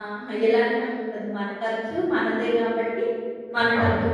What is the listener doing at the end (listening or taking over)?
listening